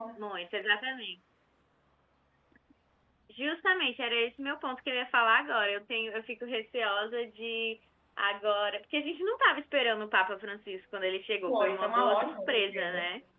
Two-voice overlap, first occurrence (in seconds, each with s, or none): 11.5 s